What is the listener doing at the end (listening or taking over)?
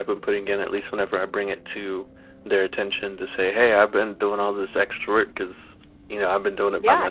taking over